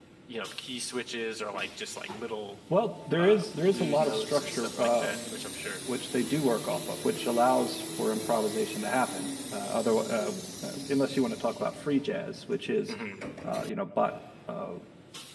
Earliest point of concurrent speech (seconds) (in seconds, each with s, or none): 3.2 s